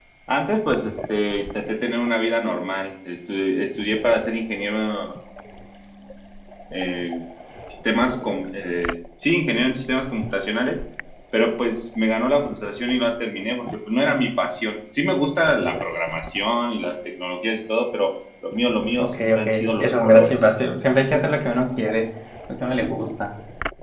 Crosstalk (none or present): present